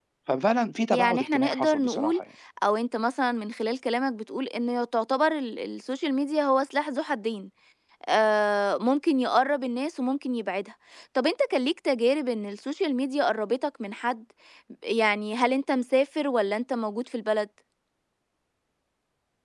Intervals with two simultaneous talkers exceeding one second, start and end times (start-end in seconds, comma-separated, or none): 0.9-2.2